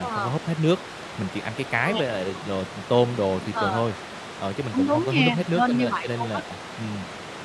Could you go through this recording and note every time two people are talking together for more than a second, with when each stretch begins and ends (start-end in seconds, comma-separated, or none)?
4.7-6.4